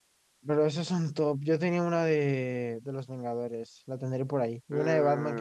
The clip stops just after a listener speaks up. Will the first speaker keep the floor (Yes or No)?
No